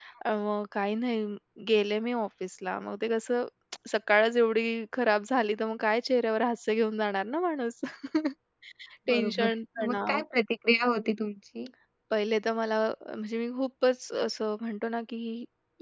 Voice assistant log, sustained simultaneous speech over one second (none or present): none